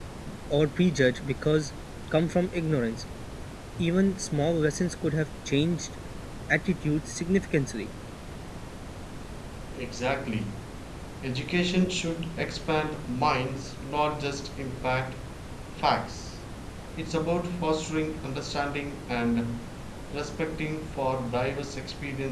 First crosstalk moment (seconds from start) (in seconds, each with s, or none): none